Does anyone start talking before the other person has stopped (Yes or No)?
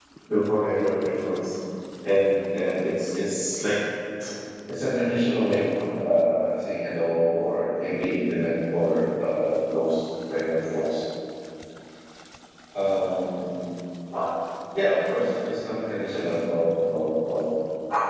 No